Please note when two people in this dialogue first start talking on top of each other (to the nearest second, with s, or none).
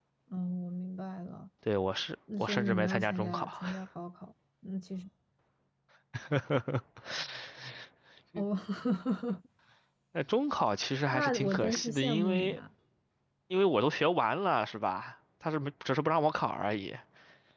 2 s